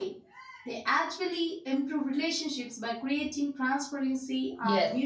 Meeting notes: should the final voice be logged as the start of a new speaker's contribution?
Yes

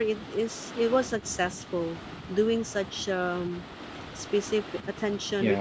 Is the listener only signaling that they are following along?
Yes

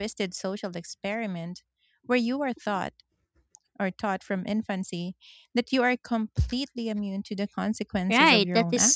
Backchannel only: No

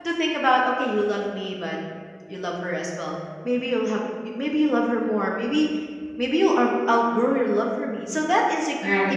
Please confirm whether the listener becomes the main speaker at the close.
No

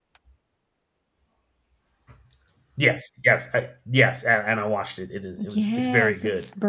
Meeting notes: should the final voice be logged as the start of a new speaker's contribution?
Yes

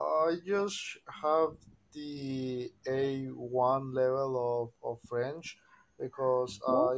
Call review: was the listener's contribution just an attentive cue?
Yes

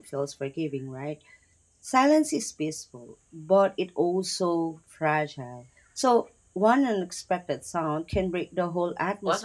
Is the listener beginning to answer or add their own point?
Yes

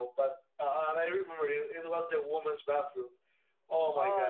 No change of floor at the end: No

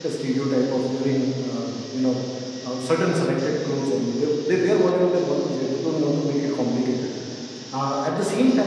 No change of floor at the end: Yes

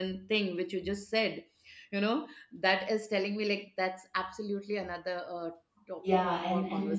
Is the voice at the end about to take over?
Yes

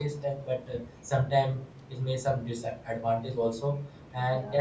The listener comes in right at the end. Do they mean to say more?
No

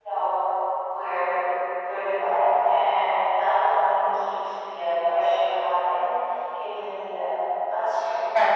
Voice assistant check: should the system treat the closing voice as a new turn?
Yes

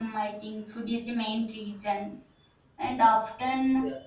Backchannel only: Yes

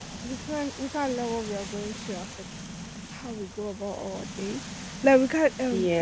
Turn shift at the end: No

